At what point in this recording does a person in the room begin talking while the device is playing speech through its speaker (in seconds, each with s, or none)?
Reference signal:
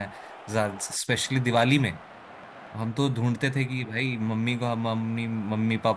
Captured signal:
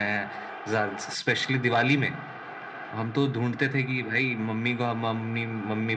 none